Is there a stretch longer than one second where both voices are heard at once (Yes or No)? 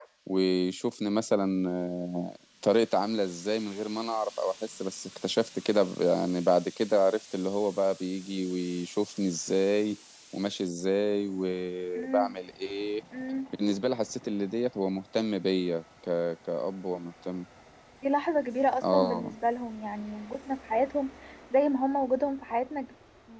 No